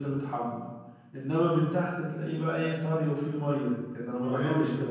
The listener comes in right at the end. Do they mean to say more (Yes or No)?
Yes